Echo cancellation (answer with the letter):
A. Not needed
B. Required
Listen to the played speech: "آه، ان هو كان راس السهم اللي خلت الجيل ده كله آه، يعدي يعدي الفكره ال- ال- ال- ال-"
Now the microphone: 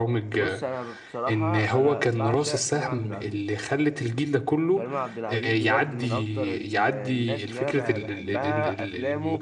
B